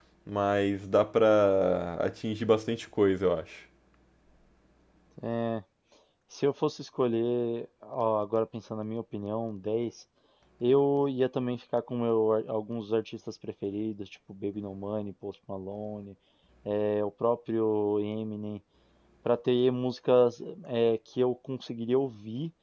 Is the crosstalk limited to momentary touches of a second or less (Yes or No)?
Yes